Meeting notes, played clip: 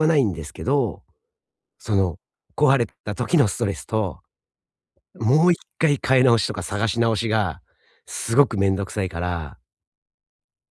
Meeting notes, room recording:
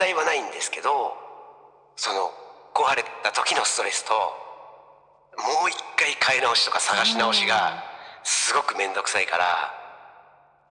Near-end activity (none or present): present